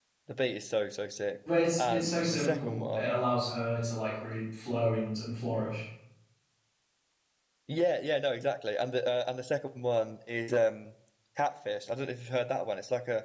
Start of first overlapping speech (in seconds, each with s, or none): 1.8 s